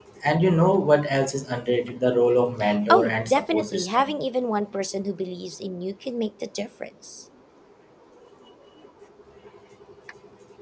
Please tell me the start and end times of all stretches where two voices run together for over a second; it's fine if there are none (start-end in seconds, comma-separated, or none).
2.9-4.2